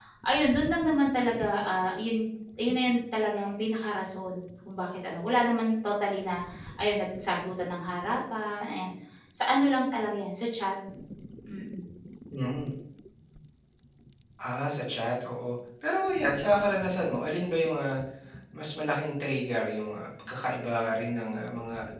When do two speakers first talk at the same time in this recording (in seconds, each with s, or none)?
none